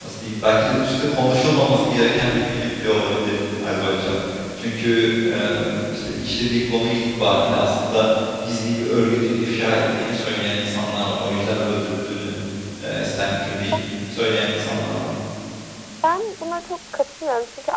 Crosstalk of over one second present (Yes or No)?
No